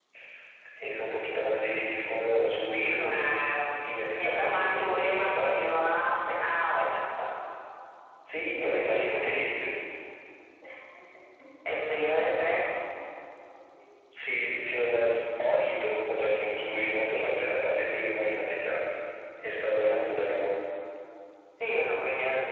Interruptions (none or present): present